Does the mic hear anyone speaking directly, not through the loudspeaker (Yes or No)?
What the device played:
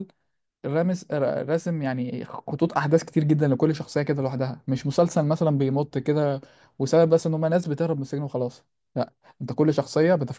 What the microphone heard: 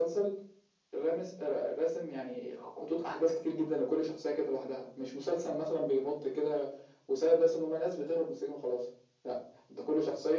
No